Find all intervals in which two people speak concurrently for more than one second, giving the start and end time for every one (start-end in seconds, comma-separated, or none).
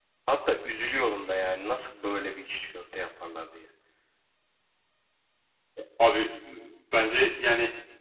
none